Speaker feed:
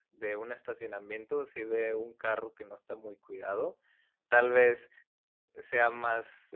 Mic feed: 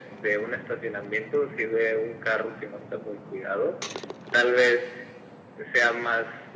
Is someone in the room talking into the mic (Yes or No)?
No